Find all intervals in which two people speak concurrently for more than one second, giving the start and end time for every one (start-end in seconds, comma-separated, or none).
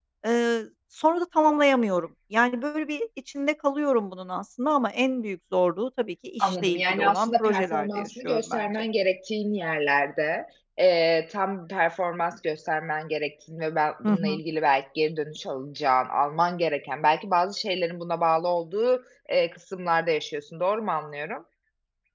6.4-8.6